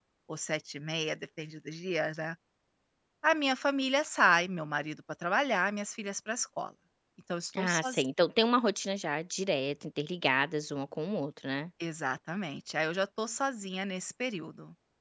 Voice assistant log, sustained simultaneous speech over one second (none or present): none